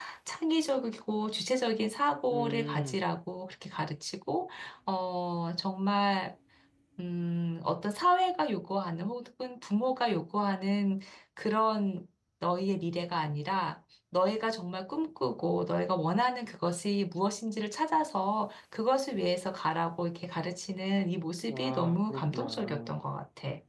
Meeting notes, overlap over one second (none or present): present